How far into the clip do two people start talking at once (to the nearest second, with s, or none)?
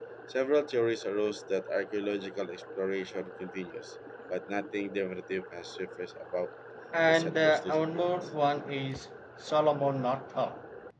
7 s